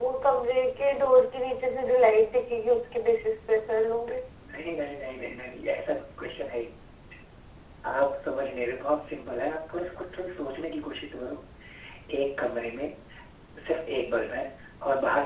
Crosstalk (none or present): none